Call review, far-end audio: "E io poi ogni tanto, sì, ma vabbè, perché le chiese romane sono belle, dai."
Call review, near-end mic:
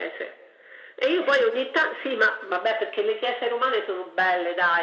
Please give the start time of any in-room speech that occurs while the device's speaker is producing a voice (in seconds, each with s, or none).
none